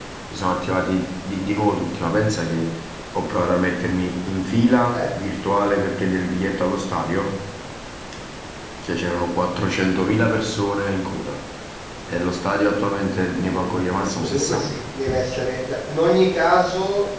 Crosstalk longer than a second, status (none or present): present